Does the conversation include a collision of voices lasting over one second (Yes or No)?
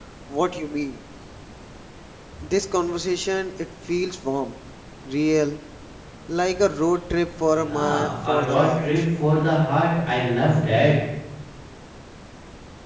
Yes